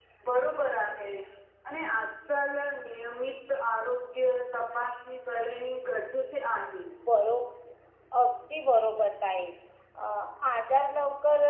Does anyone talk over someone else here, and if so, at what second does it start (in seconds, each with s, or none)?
none